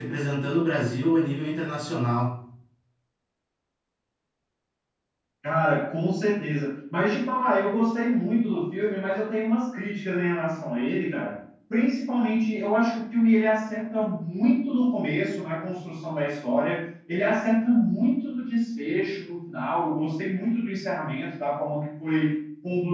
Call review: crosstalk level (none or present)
none